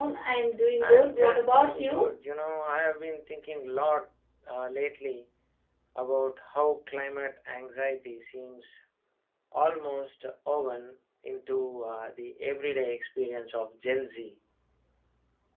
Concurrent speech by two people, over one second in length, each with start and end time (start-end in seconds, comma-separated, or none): 0.8-2.1